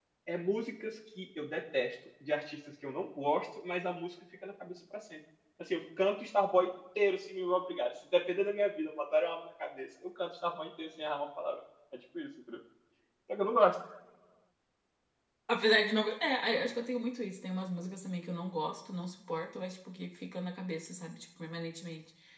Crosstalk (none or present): none